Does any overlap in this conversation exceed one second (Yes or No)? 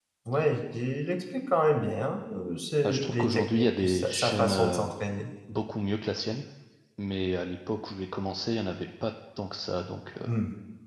Yes